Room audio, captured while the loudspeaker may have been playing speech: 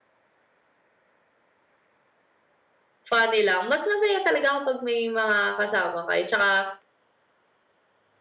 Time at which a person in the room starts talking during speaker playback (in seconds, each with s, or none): 3.1 s